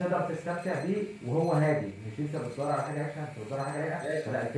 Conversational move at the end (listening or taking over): taking over